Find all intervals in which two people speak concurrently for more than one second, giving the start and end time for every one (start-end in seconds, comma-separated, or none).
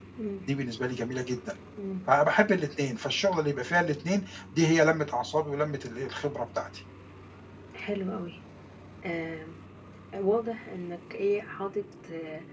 none